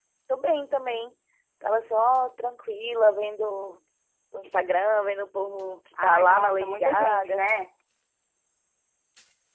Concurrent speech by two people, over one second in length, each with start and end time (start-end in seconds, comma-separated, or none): 6.0-7.4